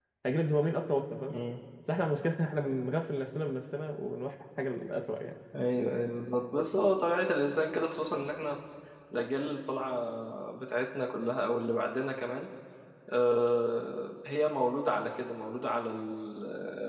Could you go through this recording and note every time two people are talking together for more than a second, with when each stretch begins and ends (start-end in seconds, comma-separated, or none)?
none